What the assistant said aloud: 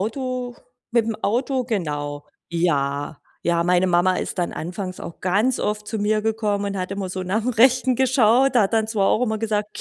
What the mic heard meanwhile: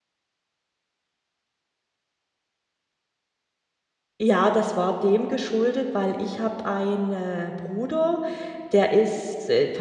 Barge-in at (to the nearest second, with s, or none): 4 s